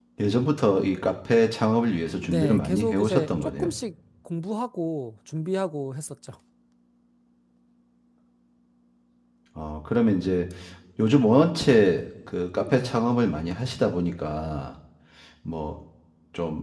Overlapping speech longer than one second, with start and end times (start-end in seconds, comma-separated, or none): 2.2-3.7